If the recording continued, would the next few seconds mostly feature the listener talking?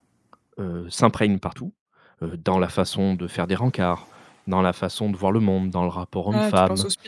Yes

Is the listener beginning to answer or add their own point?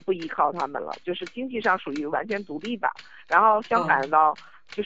No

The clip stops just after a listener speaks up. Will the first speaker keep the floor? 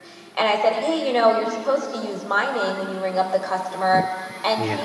Yes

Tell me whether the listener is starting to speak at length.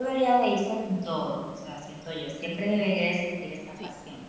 No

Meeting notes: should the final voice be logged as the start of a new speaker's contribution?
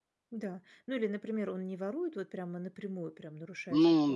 No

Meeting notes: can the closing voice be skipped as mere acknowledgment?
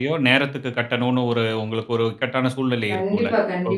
No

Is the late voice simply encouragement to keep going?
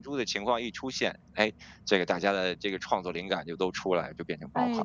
No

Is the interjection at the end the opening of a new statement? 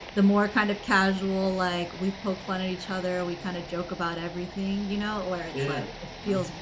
No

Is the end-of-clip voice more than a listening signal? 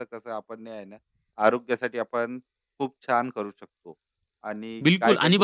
Yes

